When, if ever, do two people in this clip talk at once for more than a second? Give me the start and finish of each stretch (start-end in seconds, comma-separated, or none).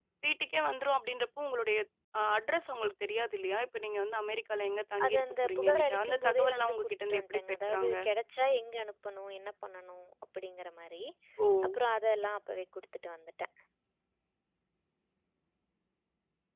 5.0-8.0